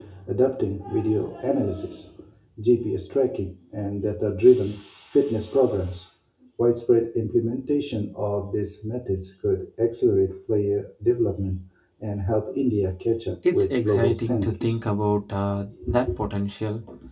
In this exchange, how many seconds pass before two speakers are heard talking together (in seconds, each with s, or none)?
13.5 s